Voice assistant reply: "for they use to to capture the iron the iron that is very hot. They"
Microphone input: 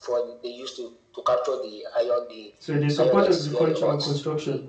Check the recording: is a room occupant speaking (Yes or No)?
Yes